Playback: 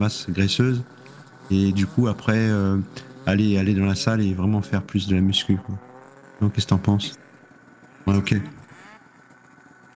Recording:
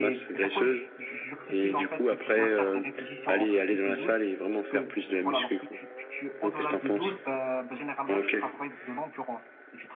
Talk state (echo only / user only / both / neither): both